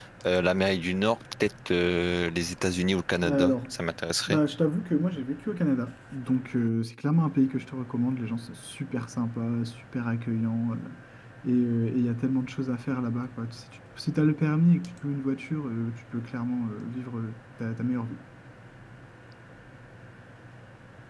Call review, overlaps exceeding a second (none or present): none